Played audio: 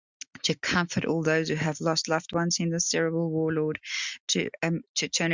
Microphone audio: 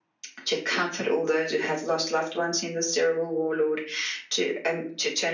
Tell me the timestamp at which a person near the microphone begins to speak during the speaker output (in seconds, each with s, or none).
none